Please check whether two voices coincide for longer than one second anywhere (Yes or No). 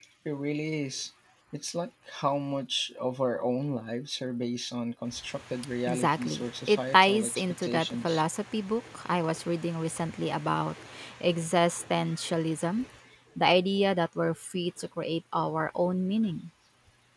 Yes